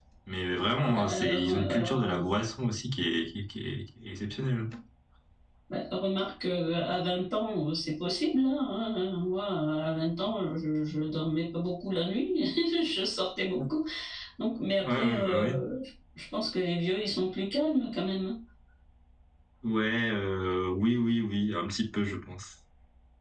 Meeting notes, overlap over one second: present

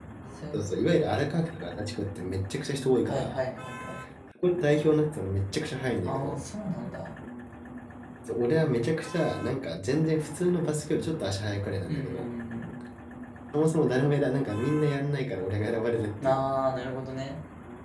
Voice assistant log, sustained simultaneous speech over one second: none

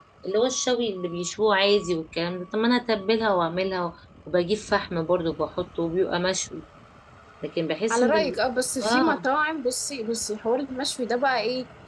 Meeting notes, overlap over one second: none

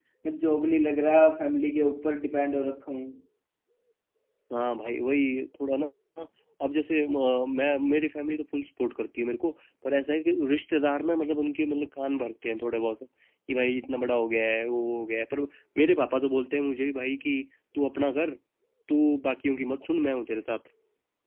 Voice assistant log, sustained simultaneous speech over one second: none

